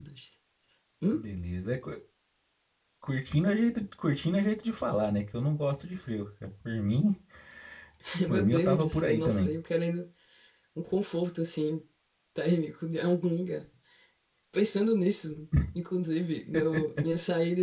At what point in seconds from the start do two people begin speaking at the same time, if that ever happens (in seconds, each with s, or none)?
8.3 s